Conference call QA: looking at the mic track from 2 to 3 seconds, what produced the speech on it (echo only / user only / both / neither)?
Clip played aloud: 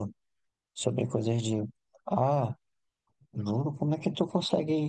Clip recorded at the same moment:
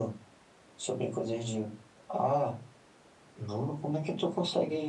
echo only